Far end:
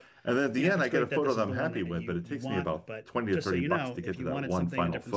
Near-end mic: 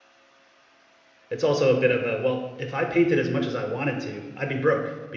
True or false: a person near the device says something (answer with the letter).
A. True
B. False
A